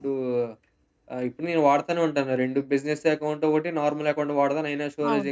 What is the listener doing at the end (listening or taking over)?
listening